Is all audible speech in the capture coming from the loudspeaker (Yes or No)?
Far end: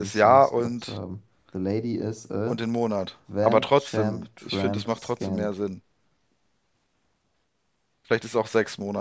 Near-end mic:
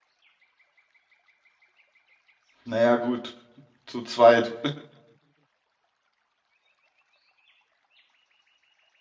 No